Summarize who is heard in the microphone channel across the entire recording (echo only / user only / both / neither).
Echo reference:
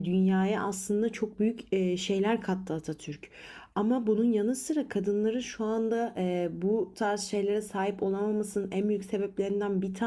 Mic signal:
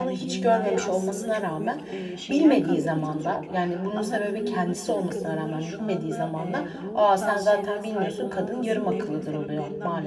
both